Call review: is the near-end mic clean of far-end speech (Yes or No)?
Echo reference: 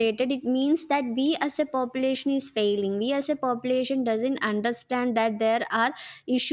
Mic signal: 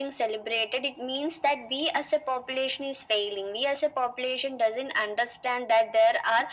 No